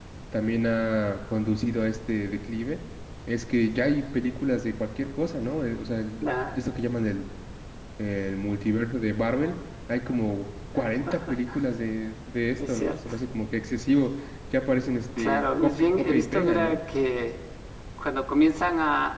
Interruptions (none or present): present